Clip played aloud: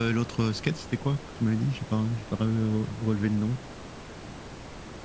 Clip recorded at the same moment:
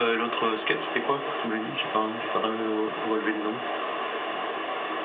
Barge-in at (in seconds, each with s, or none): none